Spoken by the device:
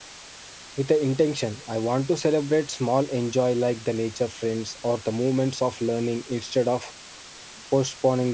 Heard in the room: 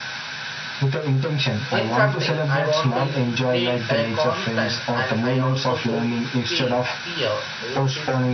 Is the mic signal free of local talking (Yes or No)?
No